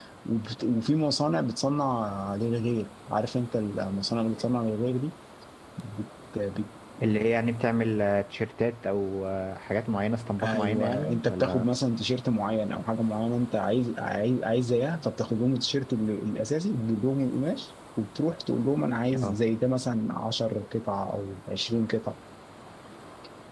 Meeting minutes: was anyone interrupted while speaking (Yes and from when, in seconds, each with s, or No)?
Yes, from 10.4 s